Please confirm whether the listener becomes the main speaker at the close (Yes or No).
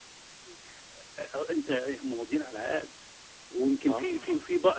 No